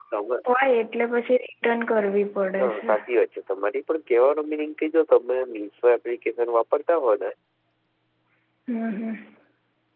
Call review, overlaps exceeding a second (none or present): none